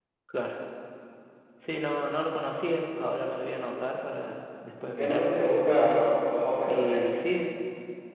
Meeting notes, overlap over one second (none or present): none